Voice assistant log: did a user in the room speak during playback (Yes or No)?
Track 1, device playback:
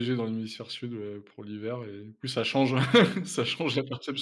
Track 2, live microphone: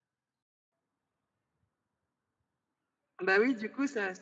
Yes